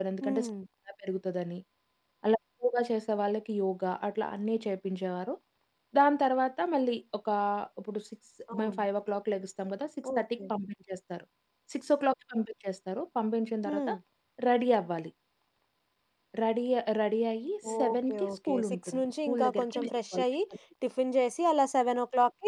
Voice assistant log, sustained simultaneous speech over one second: present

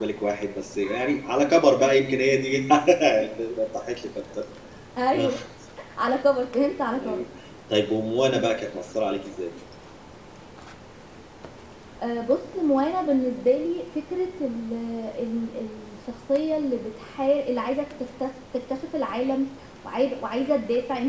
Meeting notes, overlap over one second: none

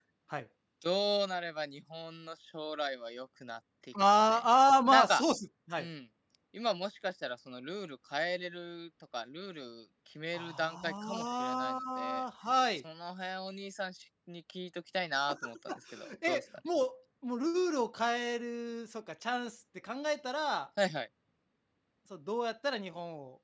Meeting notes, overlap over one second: present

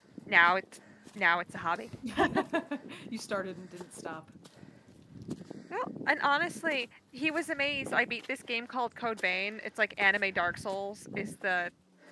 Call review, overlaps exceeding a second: none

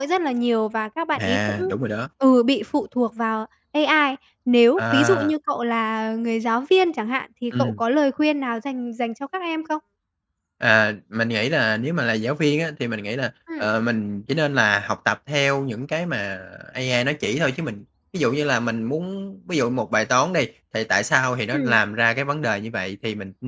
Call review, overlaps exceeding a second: none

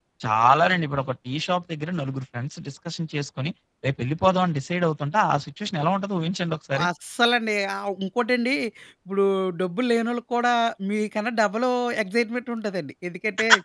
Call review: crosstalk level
none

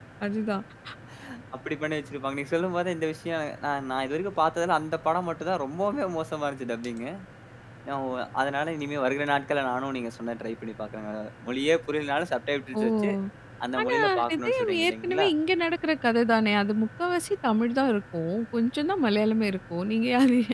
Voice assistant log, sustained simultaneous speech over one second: present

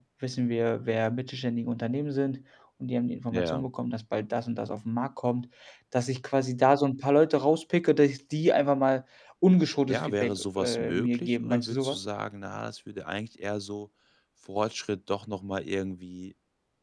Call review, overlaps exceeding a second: present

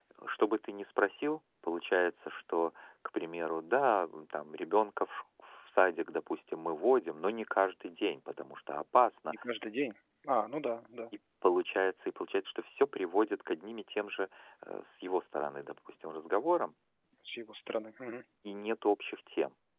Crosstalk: none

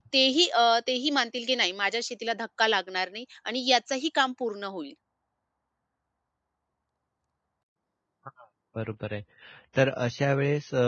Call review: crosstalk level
none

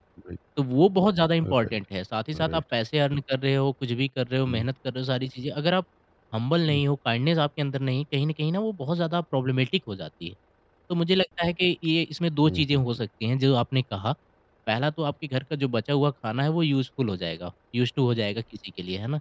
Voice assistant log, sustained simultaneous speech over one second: none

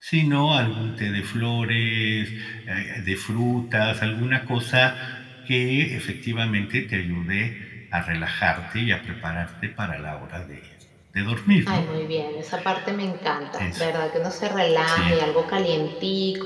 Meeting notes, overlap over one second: none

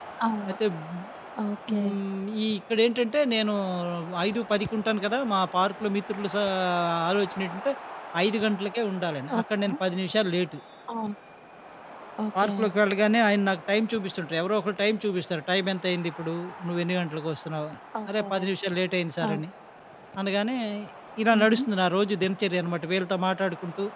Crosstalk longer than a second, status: none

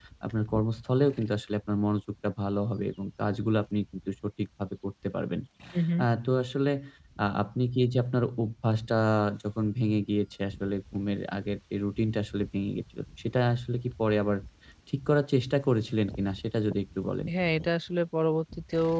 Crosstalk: none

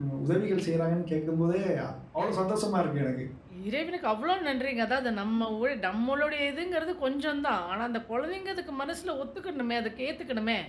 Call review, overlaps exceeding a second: none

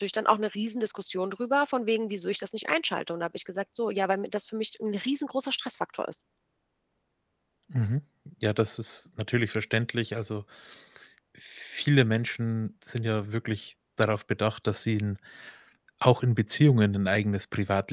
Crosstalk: none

